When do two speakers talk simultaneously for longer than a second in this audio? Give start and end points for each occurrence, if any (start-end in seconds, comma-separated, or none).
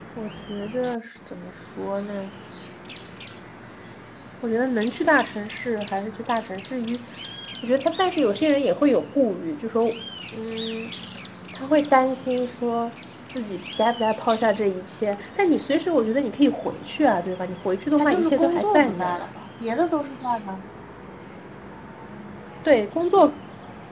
18.0-19.3